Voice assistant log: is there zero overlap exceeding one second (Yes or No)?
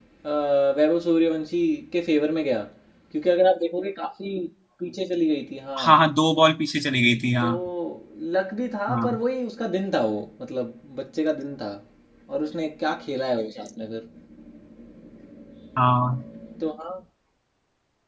Yes